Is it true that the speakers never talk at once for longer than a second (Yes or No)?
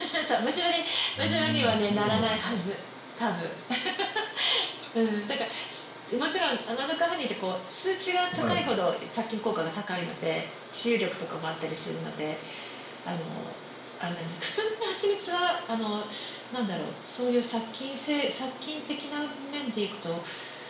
No